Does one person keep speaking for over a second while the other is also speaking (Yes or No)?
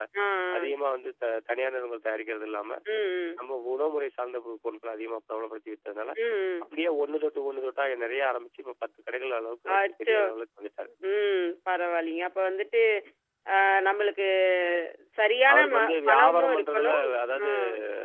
Yes